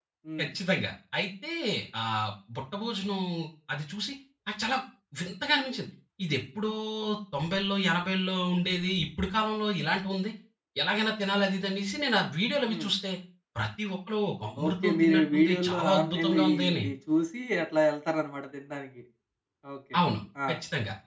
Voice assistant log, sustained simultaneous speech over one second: present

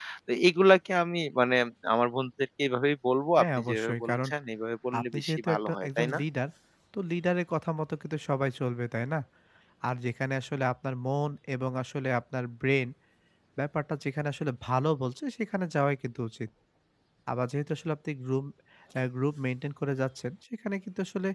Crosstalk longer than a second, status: present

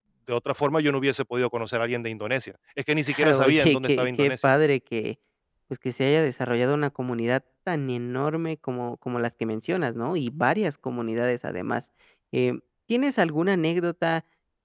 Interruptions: present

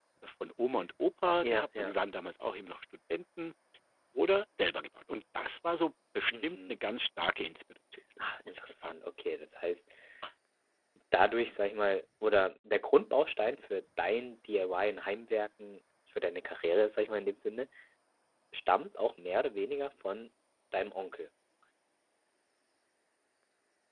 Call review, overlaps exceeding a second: none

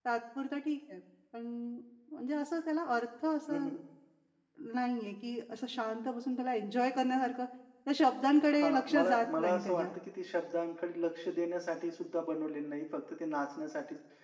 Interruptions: present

